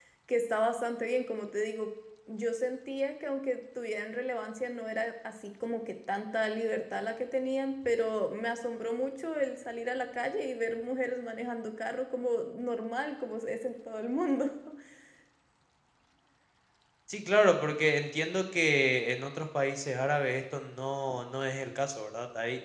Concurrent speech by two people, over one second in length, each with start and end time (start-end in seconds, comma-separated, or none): none